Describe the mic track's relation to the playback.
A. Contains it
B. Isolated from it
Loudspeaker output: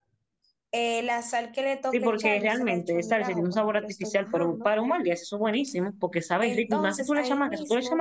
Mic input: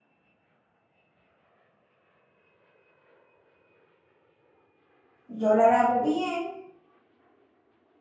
B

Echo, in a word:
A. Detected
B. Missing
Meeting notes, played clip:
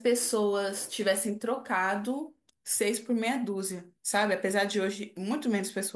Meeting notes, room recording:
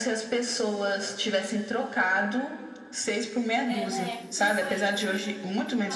A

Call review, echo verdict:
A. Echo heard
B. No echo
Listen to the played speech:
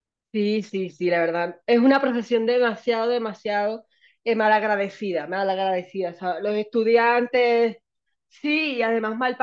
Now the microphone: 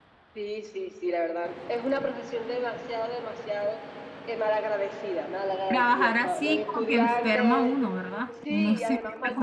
A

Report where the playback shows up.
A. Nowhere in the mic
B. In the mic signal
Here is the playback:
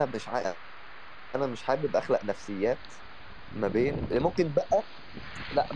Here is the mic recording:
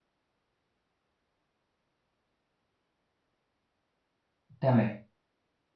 A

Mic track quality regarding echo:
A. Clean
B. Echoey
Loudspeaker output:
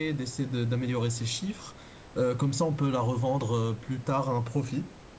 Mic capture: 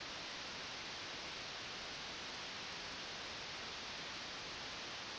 A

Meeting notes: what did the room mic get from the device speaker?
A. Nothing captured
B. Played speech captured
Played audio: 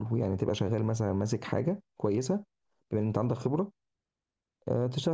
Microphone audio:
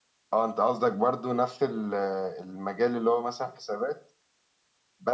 A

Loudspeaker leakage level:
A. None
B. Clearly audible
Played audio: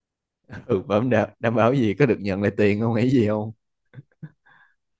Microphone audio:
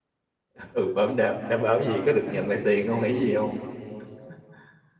B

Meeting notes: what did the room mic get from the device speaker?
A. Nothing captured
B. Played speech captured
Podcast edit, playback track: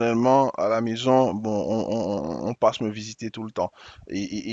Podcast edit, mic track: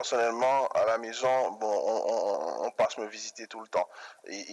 B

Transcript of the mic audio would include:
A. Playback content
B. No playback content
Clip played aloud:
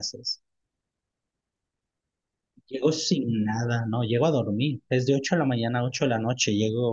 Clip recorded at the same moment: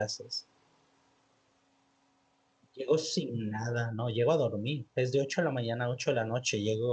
A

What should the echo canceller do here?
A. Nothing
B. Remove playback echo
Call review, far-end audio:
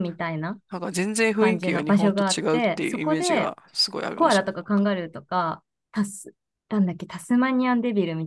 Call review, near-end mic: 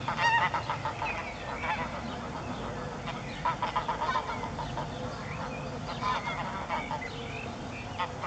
A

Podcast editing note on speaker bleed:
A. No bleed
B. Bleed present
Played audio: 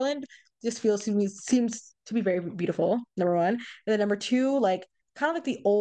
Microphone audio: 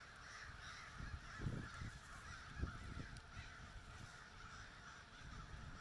A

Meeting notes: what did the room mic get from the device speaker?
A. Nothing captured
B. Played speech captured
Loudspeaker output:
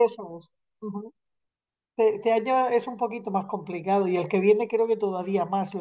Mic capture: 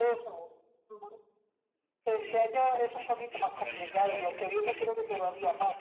B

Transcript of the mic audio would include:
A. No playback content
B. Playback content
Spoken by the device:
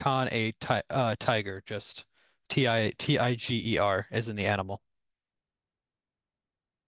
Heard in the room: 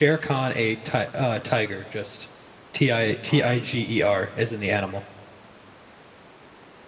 B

